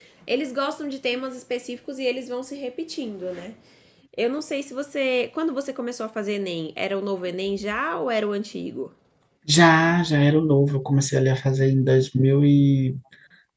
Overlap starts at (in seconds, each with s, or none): none